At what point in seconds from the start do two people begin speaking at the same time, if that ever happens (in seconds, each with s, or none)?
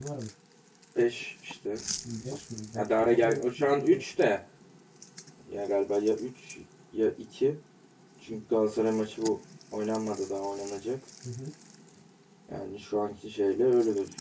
2.7 s